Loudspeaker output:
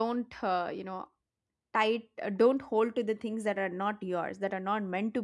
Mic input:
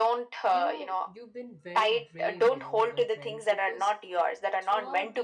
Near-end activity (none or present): present